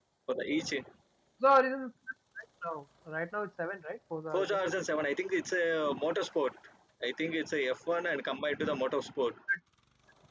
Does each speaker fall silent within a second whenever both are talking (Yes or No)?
Yes